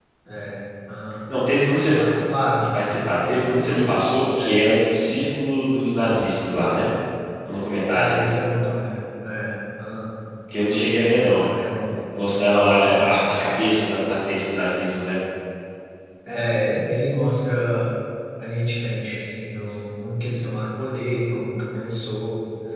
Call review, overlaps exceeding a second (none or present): none